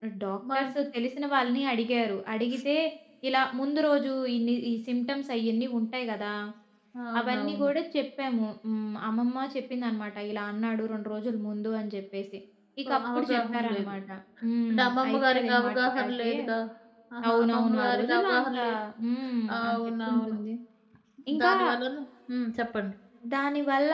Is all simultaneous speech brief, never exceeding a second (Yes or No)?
No